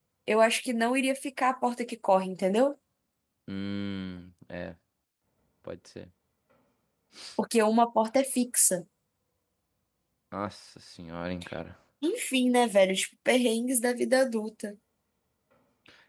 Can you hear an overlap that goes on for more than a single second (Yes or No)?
No